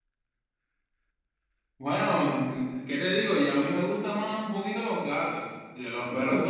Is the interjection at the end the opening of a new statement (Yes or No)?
No